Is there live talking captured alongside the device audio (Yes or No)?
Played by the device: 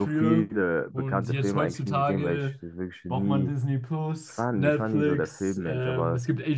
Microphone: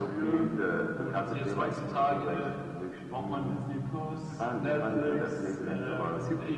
Yes